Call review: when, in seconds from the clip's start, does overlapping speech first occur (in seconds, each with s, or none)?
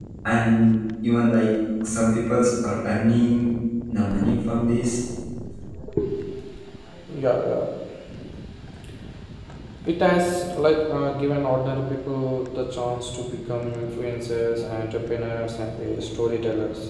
none